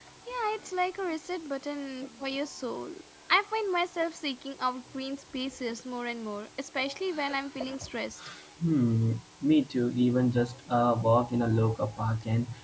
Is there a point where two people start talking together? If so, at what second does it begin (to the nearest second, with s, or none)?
none